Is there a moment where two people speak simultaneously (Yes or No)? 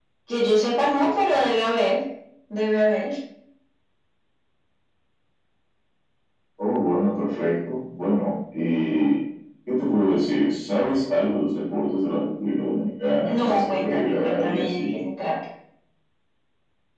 Yes